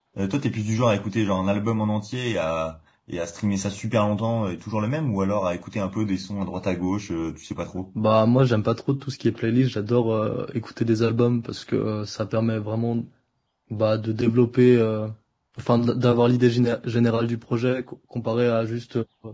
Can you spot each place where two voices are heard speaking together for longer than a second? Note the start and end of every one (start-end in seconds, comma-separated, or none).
none